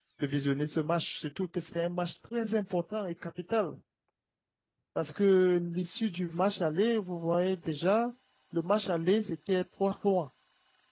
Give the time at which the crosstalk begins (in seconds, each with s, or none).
none